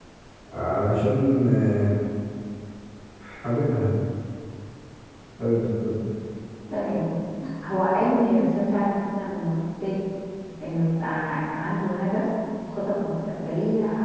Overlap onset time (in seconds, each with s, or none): none